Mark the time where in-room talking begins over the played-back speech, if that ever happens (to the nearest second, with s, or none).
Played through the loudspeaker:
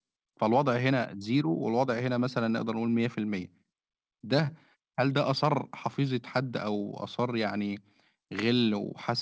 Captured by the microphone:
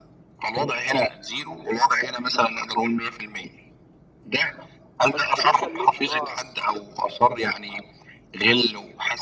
5 s